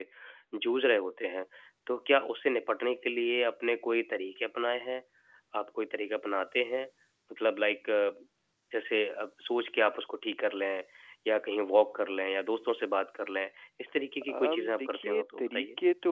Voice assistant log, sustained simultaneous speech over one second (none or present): present